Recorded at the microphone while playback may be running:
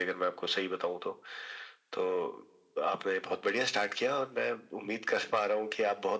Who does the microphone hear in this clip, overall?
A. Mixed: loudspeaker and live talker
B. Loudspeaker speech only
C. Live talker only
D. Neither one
B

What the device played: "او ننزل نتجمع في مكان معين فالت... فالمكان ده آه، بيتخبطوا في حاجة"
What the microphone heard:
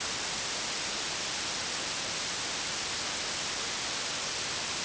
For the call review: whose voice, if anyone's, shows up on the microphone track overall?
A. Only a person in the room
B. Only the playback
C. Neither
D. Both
C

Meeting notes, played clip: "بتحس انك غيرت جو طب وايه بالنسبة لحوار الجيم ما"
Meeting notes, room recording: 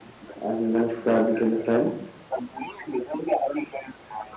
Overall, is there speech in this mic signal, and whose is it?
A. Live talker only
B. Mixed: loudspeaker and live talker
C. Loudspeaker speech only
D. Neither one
B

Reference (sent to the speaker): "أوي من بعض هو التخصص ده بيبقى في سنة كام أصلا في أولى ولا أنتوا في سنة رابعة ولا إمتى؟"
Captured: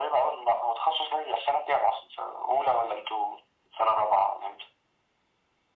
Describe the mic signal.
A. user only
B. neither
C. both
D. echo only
D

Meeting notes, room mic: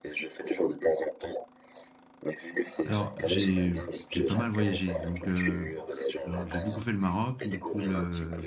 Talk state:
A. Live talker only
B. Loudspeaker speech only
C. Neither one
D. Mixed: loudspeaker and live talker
D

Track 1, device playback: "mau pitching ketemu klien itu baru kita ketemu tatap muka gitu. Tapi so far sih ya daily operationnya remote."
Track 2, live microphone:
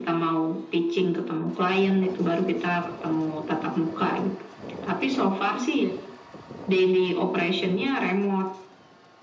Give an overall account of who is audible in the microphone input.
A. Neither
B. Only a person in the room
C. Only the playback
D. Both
C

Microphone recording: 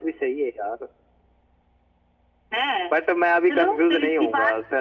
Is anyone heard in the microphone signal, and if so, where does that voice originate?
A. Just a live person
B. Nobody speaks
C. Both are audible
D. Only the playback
D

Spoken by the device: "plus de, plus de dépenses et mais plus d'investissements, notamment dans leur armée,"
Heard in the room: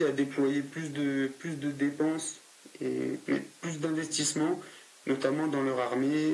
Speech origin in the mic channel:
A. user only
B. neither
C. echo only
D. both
C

